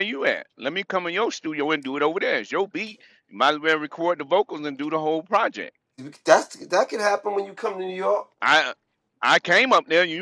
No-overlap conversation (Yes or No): Yes